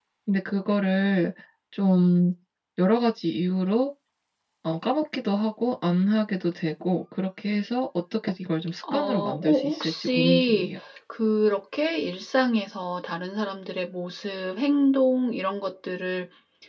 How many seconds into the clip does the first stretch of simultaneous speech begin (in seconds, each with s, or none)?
8.8 s